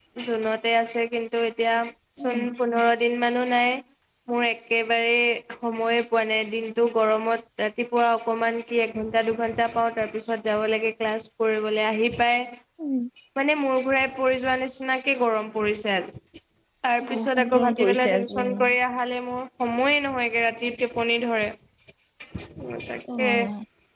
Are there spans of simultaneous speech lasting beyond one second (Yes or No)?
Yes